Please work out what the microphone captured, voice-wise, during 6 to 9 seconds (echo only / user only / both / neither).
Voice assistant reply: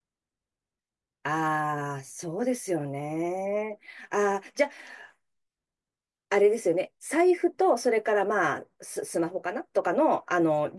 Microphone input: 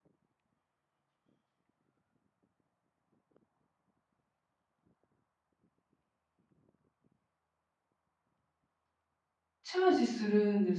neither